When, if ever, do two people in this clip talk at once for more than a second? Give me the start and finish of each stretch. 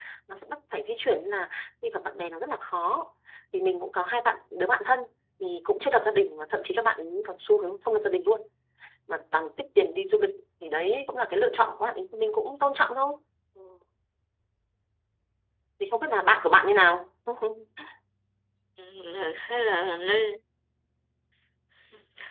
none

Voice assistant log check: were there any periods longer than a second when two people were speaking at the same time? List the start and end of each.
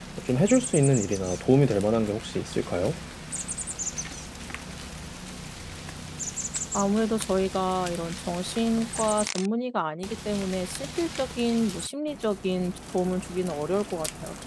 none

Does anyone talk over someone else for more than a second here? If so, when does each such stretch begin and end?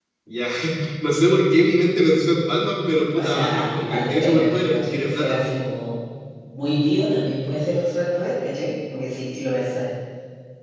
3.1-5.3

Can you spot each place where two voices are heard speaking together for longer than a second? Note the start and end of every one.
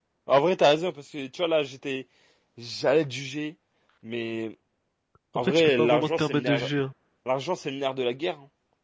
5.4-6.7

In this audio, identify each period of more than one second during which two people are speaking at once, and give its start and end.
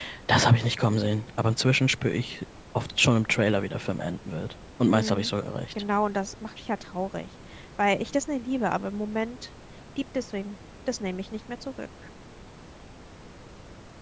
none

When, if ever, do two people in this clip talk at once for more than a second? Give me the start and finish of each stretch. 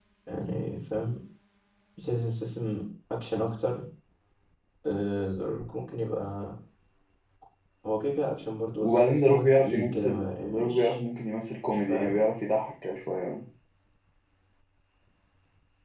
8.8-11.0

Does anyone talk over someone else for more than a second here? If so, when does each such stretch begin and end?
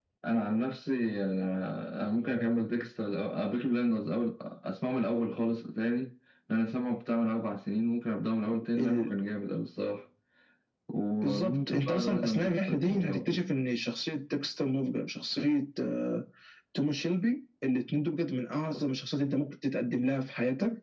11.2-13.4

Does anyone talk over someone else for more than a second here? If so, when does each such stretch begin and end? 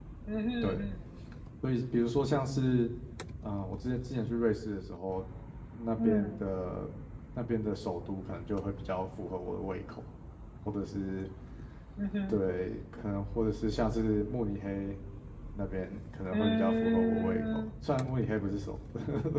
16.3-17.7

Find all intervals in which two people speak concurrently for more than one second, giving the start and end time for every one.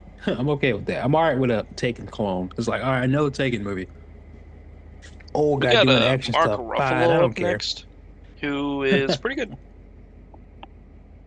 5.6-7.6

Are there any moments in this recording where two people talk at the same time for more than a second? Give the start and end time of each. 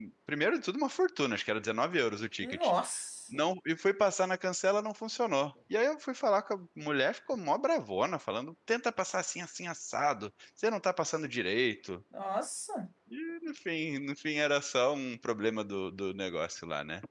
none

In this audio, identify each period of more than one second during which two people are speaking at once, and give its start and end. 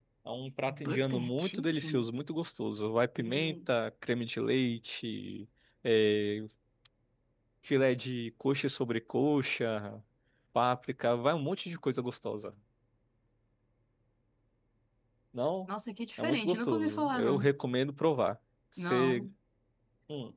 0.8-2.0, 16.2-17.5

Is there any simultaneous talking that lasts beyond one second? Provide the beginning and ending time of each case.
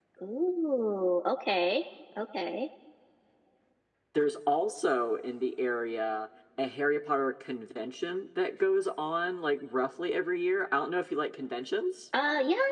none

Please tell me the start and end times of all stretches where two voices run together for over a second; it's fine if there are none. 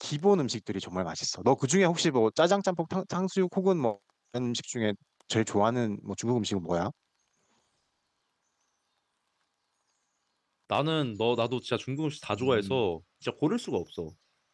none

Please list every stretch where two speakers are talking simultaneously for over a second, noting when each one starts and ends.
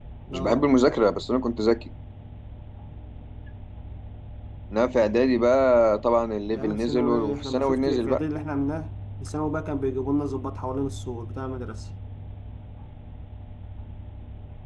6.5-8.2

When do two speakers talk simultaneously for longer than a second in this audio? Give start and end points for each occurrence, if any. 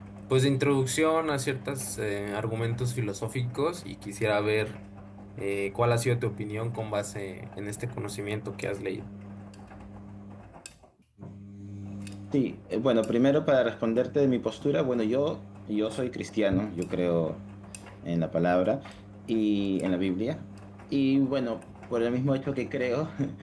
none

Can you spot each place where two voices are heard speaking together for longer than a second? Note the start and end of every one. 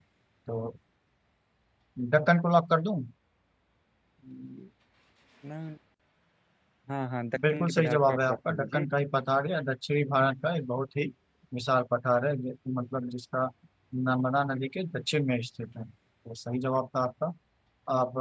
7.5-8.8

